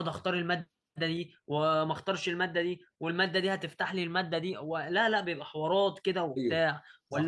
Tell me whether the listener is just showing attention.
Yes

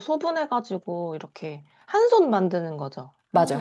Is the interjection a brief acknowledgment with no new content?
No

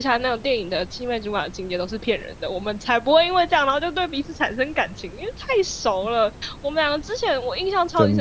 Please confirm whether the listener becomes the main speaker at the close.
No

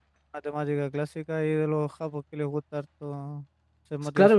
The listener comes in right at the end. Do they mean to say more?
Yes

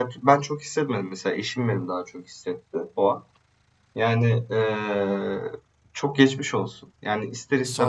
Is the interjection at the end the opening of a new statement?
No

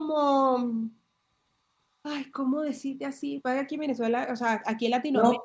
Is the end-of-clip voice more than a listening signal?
Yes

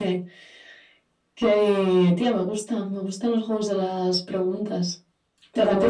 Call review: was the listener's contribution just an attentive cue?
No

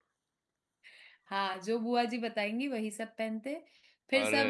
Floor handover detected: No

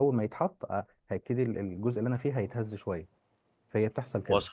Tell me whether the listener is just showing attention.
Yes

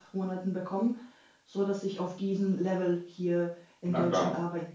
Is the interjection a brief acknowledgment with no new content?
No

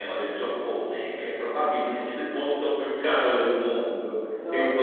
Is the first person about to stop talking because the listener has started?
No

